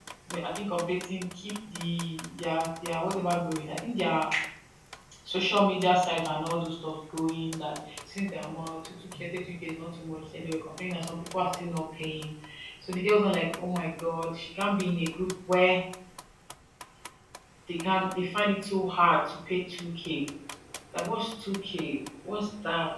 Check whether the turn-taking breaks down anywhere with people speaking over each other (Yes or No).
No